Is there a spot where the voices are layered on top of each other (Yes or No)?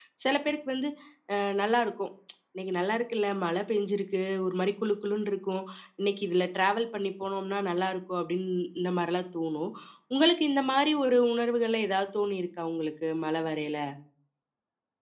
No